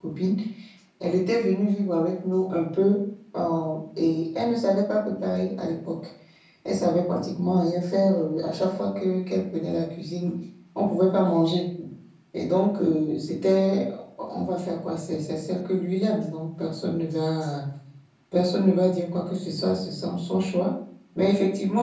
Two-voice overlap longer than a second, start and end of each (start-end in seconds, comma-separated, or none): none